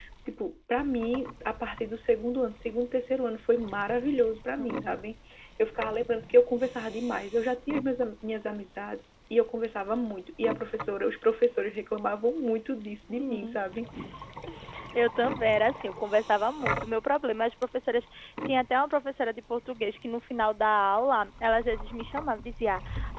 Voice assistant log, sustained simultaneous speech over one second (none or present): none